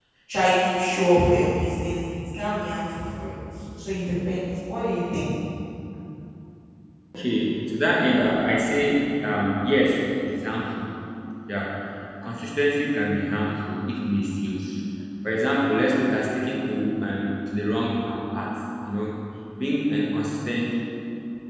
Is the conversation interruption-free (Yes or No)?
Yes